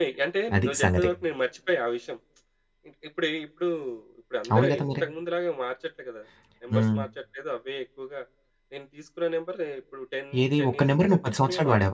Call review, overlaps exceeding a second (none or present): present